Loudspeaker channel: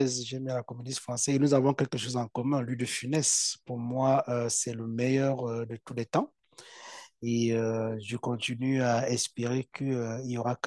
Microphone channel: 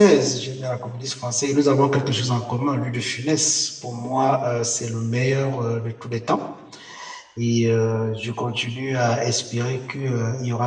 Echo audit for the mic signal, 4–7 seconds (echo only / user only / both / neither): echo only